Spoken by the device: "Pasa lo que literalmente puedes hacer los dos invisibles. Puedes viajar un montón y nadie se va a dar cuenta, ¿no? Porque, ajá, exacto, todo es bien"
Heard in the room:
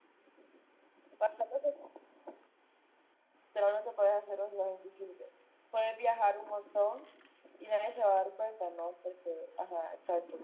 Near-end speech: none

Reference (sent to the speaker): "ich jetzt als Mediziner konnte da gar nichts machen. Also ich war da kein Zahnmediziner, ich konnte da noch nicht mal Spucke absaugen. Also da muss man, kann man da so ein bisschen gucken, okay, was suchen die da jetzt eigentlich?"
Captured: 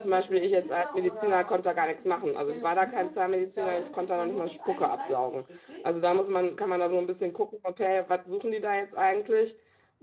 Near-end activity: present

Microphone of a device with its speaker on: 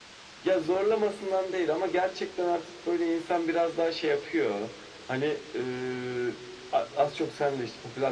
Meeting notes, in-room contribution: none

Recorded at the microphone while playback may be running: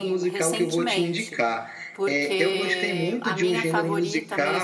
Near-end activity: present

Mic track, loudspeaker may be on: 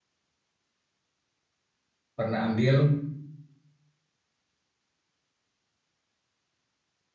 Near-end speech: present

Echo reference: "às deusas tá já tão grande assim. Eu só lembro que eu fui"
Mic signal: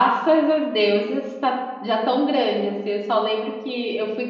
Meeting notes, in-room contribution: none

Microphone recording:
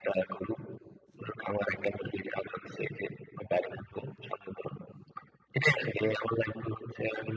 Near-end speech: none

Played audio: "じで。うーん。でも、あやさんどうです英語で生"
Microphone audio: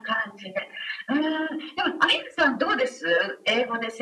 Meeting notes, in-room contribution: none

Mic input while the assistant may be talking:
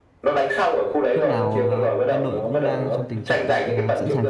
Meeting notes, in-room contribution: present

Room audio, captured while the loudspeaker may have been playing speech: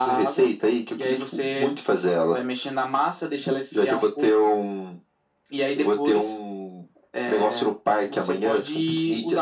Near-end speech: none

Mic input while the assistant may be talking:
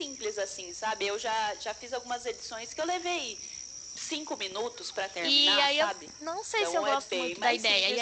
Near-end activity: present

